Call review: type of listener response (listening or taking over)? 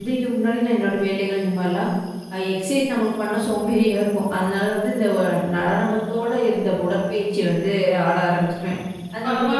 taking over